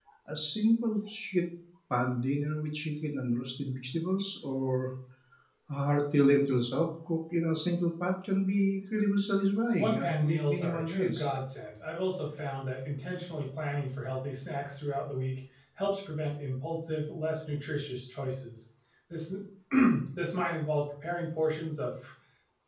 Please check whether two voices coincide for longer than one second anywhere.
Yes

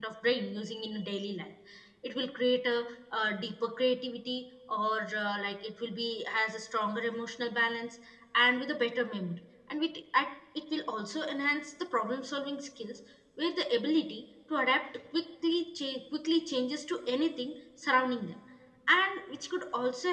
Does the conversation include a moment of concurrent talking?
No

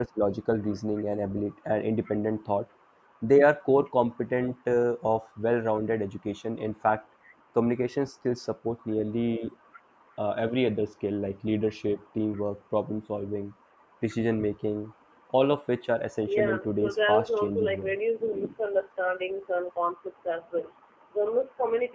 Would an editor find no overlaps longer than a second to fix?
No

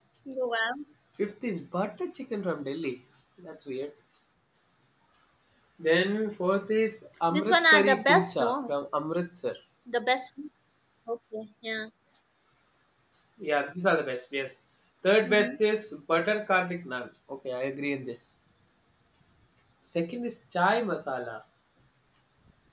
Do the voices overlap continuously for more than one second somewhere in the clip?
Yes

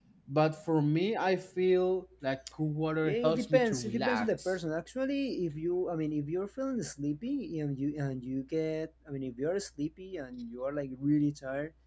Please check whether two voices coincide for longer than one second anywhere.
Yes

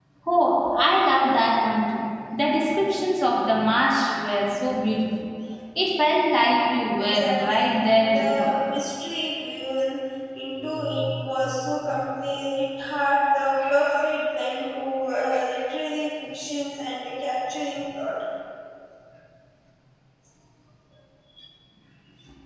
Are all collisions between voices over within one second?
No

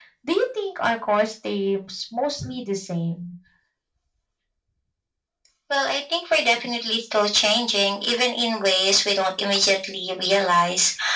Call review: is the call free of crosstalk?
Yes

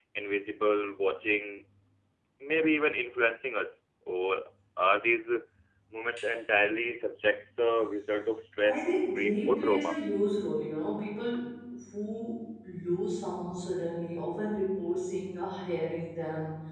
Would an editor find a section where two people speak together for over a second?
Yes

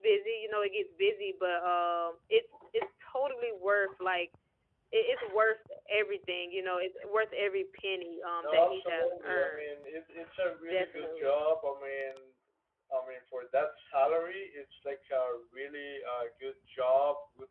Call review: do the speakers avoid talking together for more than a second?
No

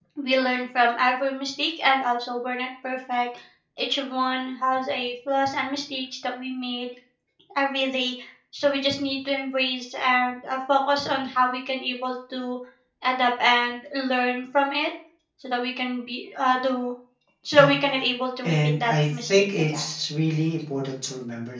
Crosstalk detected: Yes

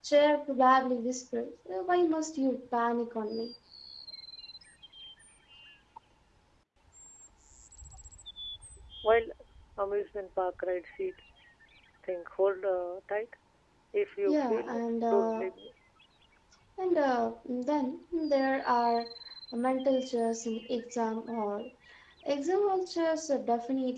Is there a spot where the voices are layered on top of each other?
Yes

